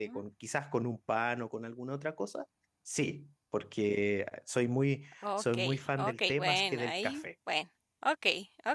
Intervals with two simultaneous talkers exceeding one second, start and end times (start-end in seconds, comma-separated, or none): 5.4-7.2